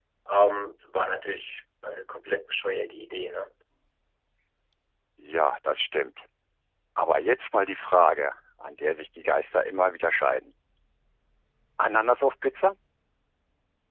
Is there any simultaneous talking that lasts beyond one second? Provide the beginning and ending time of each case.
none

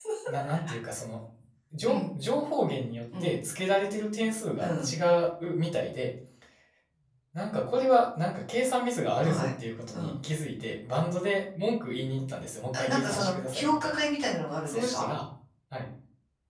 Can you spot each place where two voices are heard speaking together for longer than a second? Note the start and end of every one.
12.7-14.0

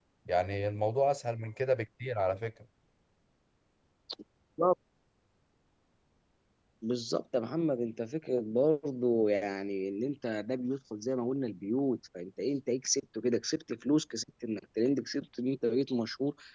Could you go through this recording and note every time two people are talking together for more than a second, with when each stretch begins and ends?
none

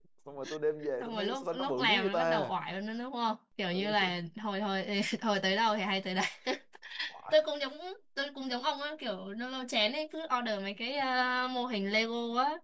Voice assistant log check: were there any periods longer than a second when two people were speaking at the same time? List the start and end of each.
1.0-2.5

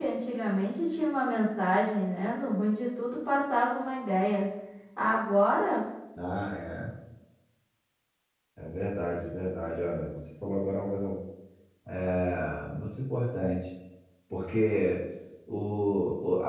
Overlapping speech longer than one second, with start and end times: none

